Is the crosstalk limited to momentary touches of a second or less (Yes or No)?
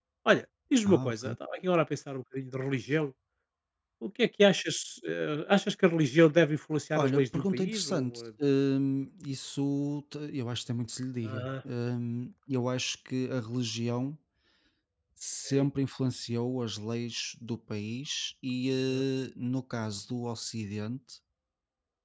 No